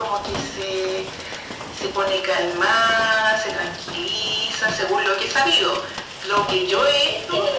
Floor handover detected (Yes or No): Yes